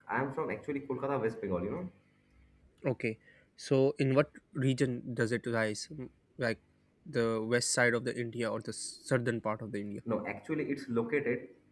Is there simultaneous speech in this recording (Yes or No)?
No